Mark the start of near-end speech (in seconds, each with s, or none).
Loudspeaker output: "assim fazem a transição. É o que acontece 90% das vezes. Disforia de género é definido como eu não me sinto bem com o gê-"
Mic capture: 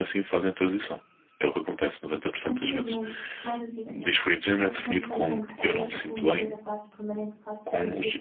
2.4 s